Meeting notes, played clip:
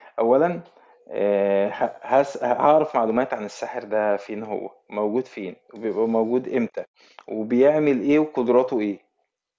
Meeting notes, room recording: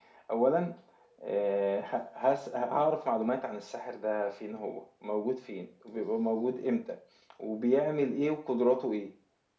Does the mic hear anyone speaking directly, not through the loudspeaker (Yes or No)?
No